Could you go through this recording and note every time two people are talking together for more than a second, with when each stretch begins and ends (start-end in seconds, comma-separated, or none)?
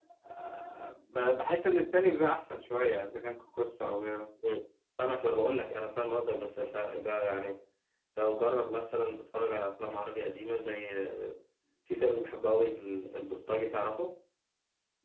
none